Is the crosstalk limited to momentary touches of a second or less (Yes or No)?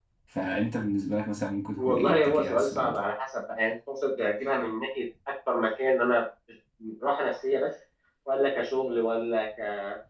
No